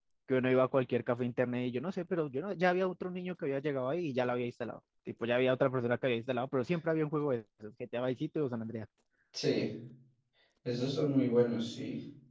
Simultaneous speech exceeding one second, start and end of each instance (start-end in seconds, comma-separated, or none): none